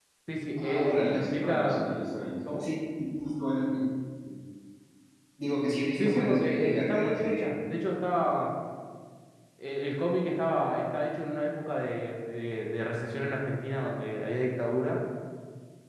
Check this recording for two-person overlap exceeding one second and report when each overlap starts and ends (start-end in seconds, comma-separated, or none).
0.6-1.9, 6.0-7.5